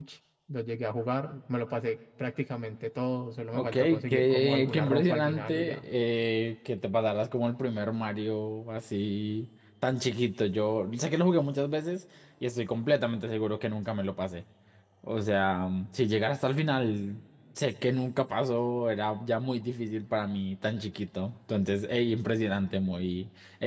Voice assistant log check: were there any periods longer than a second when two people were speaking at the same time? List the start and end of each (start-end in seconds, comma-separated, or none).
3.5-5.8